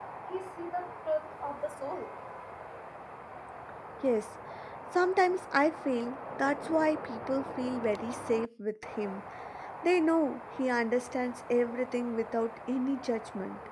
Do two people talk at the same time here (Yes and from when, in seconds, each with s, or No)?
No